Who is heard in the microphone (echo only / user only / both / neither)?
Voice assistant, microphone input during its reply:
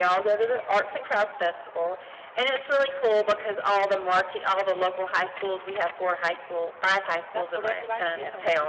both